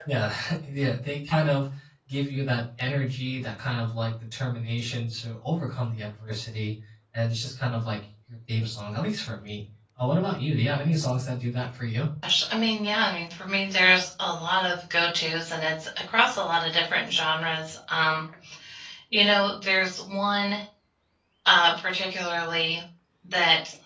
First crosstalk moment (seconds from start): none

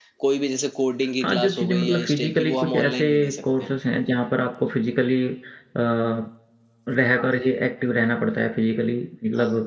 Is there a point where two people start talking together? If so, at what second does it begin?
1.2 s

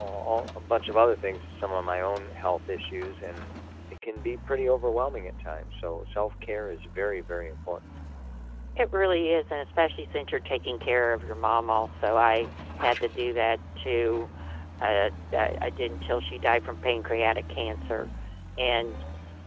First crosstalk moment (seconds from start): none

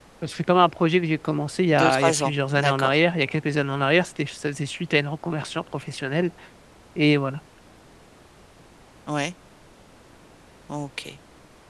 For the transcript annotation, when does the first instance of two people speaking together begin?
1.7 s

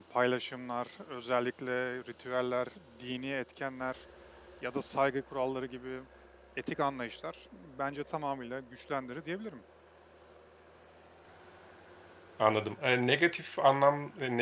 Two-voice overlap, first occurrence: none

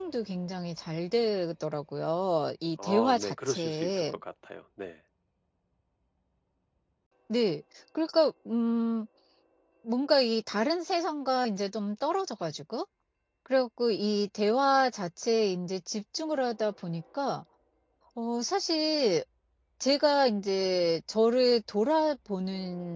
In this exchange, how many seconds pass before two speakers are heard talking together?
2.8 s

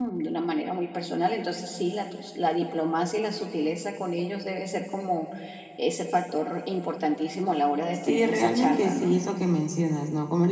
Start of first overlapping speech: 7.9 s

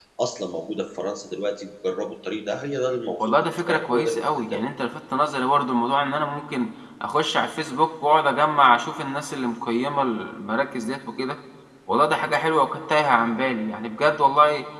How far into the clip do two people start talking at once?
3.2 s

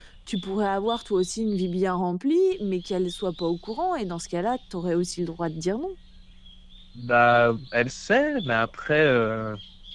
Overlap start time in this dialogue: none

